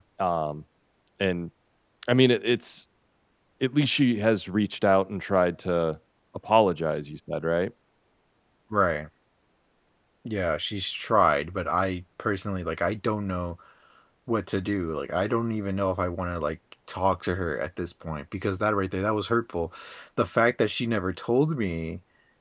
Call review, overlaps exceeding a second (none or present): none